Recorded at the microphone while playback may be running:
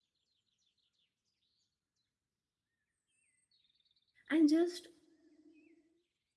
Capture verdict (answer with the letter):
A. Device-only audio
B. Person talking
B